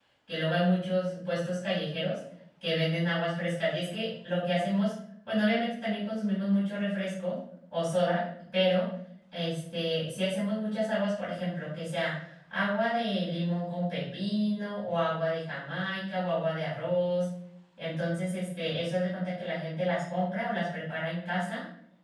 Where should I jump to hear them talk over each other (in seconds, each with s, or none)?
none